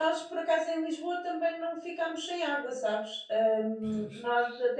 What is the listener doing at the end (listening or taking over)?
listening